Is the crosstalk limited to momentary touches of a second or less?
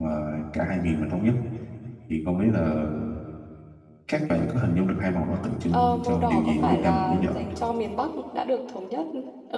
No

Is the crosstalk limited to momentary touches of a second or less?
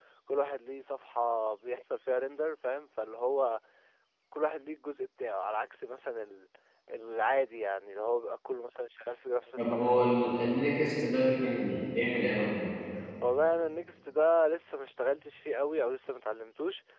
Yes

